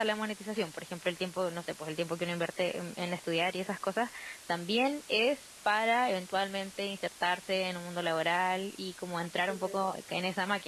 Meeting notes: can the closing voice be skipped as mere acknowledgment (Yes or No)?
Yes